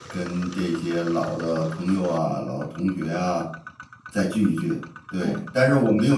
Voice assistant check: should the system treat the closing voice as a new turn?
No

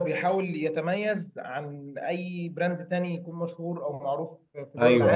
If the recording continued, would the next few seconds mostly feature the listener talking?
Yes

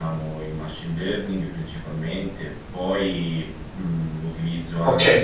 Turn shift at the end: Yes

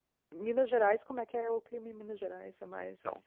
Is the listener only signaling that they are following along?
No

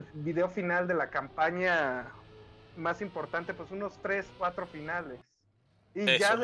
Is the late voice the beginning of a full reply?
No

